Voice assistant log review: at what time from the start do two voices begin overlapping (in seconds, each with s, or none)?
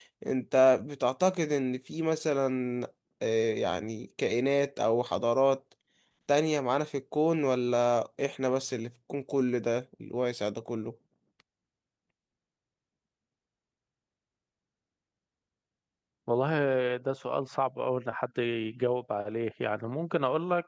none